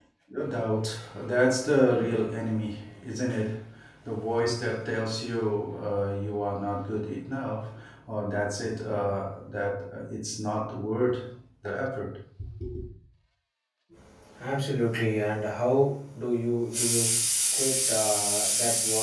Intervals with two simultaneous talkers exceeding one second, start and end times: none

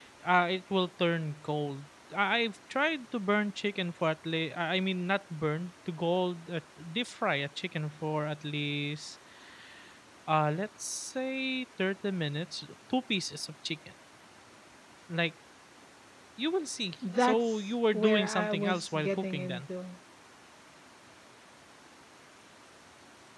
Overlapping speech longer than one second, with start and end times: 17.2-19.6

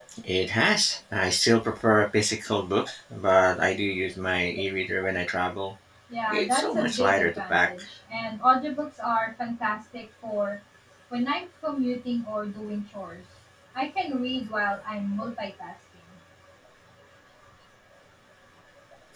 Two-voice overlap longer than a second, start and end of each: 6.3-7.7

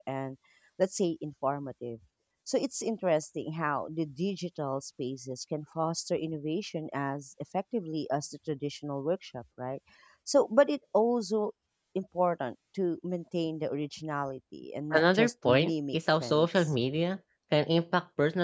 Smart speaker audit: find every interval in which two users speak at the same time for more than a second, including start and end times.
14.9-16.7

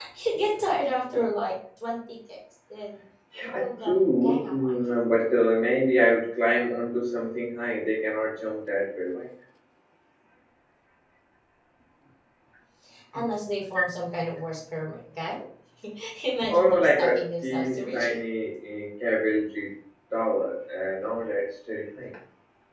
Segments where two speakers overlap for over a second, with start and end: 3.4-4.9, 16.5-18.2

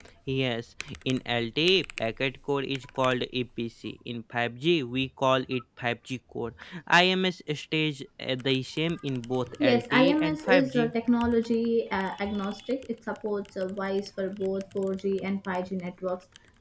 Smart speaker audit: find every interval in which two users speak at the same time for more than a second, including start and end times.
9.6-10.9

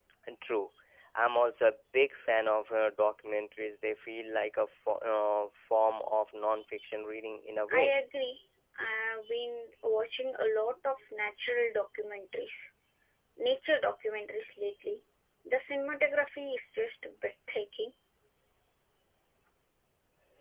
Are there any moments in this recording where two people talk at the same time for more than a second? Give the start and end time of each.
none

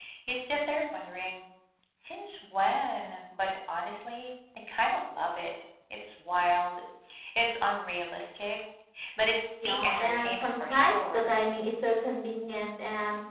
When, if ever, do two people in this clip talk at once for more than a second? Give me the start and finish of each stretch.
9.6-11.3

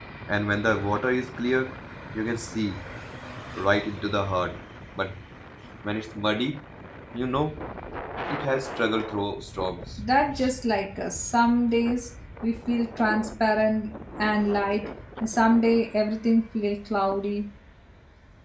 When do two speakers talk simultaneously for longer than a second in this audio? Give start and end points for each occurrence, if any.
none

